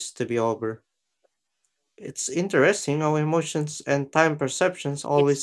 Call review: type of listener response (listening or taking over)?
taking over